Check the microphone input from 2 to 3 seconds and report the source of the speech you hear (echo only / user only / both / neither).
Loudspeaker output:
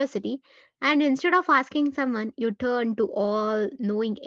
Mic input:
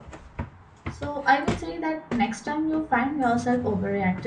user only